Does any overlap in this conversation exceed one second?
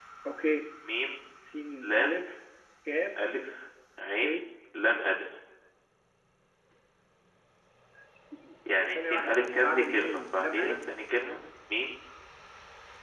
Yes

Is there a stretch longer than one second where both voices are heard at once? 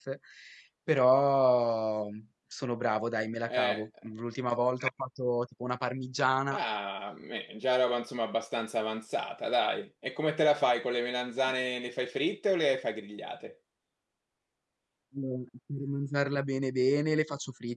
No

